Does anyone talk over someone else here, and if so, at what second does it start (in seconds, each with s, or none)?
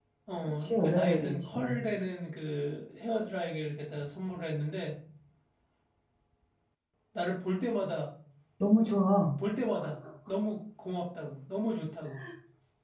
0.6 s